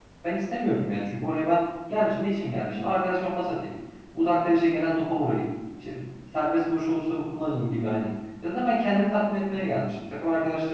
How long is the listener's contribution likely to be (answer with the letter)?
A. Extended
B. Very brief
B